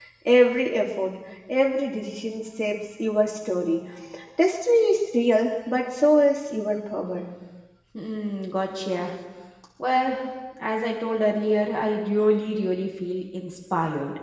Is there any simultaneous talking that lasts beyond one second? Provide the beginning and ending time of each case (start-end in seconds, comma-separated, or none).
none